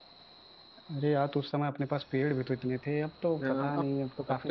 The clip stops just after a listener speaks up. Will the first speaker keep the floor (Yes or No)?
No